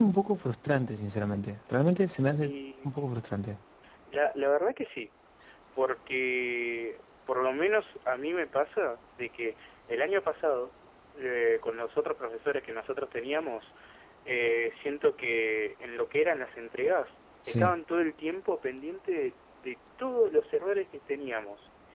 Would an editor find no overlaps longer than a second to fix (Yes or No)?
Yes